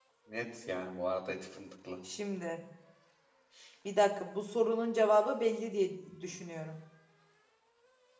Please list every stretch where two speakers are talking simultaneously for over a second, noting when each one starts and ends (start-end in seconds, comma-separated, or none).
none